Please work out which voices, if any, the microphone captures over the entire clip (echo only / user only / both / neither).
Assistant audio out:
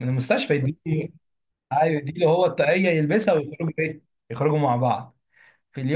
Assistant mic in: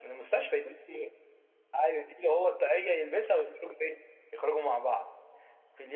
echo only